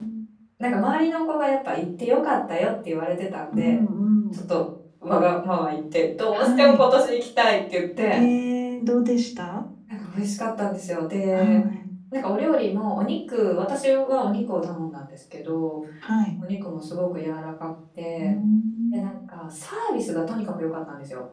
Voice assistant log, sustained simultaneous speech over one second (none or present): none